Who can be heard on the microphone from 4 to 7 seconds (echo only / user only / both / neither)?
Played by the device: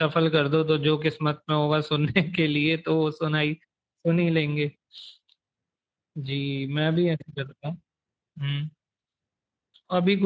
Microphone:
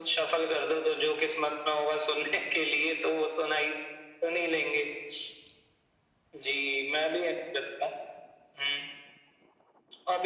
echo only